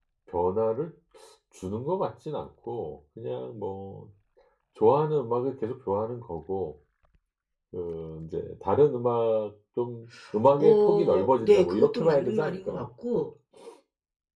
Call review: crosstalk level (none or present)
present